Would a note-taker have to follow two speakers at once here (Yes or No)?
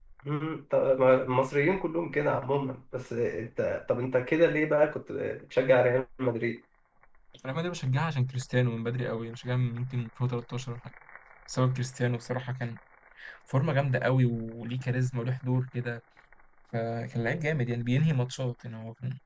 No